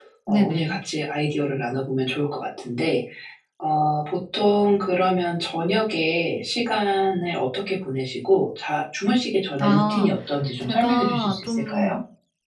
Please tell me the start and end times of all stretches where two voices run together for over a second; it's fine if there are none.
10.6-12.0

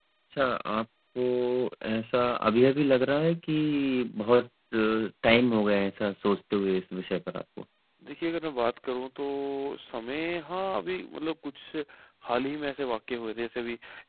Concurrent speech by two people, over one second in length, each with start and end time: none

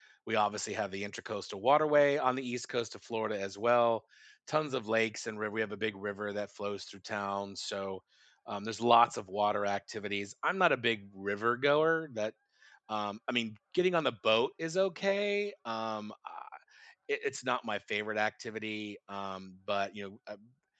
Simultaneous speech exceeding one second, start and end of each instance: none

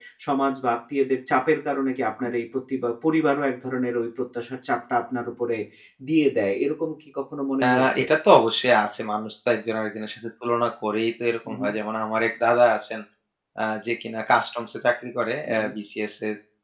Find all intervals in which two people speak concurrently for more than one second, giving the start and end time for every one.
none

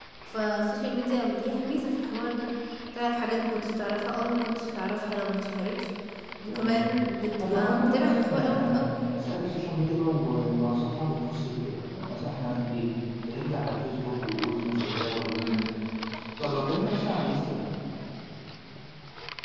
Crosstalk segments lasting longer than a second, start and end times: 7.4-8.8

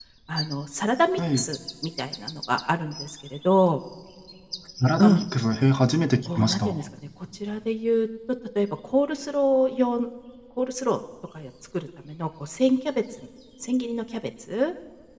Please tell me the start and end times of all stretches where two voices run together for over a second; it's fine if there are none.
none

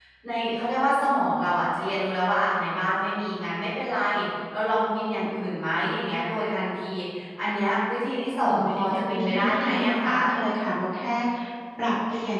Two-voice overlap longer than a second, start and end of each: 8.3-10.1

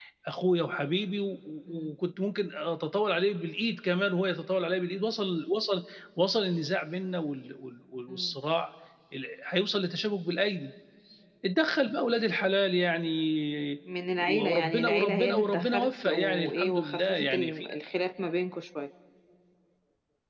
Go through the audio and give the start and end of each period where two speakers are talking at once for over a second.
14.2-17.6

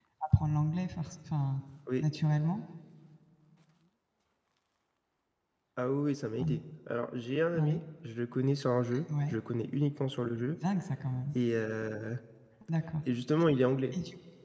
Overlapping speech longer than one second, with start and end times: none

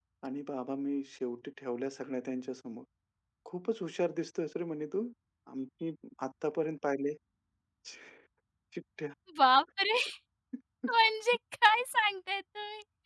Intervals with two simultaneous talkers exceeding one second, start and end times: none

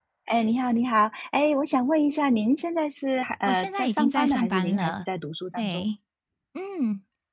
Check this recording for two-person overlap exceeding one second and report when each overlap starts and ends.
3.4-5.0

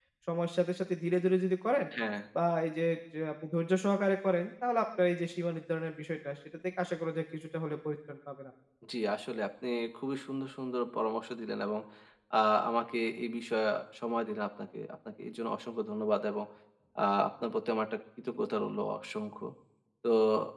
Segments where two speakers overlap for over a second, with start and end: none

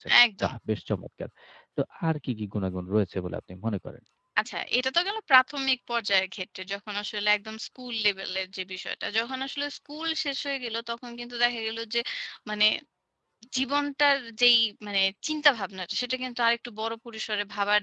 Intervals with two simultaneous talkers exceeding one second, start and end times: none

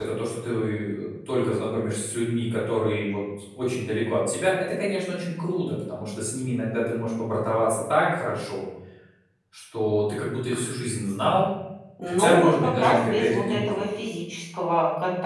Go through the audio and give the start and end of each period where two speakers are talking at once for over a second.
12.1-13.8

